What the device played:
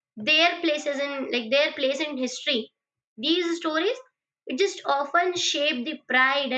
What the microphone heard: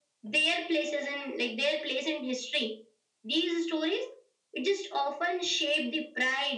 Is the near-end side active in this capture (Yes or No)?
No